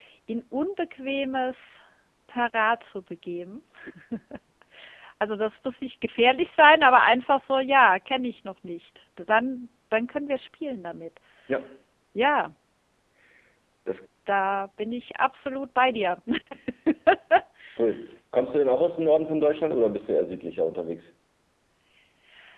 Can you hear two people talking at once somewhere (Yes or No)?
No